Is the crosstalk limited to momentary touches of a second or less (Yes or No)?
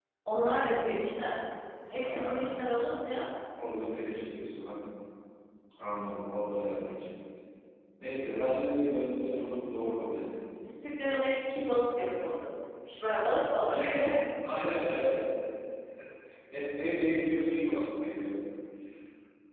Yes